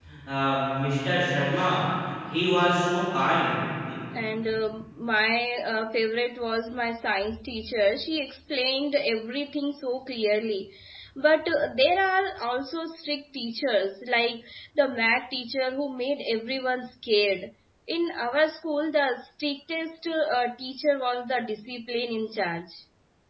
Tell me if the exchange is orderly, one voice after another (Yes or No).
Yes